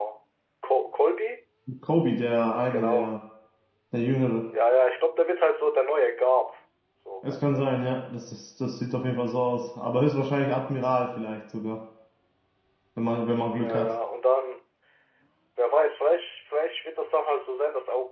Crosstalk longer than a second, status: none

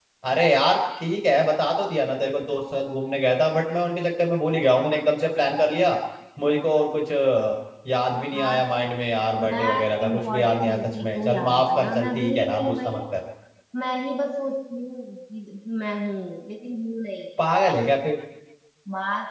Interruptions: present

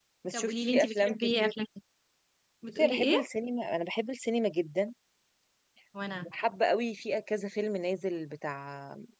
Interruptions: present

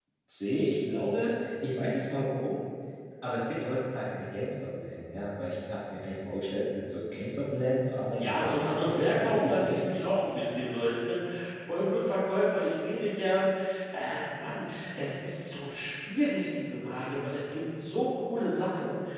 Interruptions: present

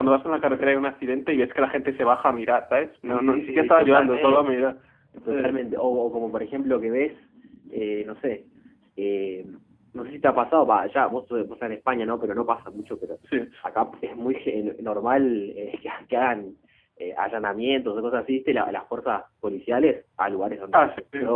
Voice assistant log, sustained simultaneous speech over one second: present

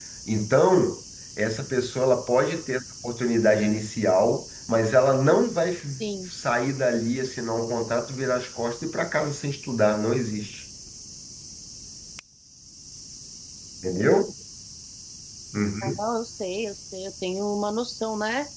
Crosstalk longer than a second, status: none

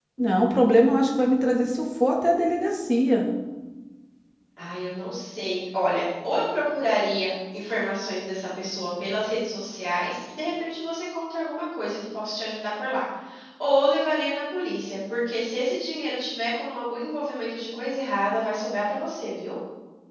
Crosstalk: none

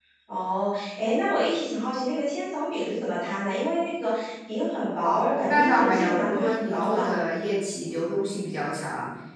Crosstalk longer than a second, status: present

